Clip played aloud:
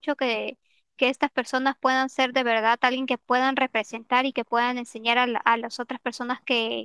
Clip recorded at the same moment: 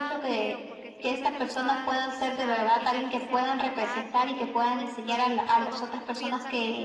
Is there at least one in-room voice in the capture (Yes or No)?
Yes